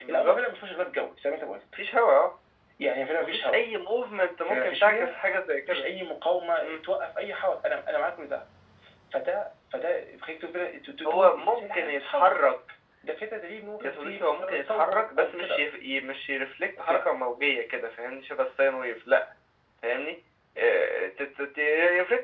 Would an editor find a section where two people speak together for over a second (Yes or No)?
Yes